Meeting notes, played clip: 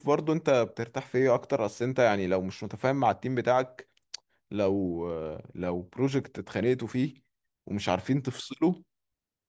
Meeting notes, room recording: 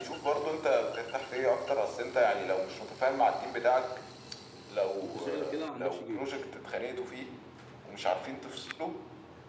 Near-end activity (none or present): present